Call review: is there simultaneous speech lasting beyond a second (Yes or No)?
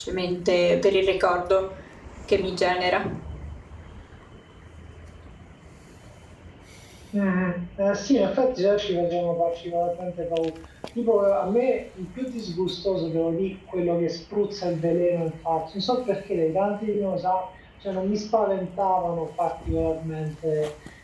No